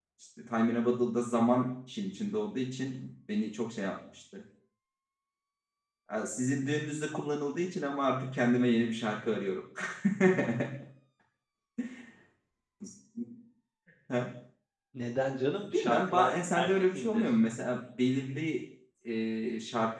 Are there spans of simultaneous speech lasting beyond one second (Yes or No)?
Yes